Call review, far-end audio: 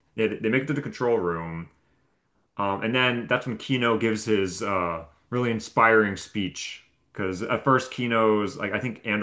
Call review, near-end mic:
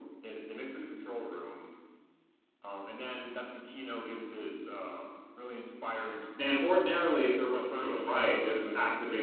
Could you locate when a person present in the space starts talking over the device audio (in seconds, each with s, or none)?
6.4 s